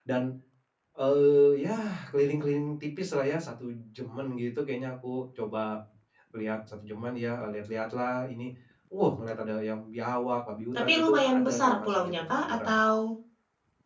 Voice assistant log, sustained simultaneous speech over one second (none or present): present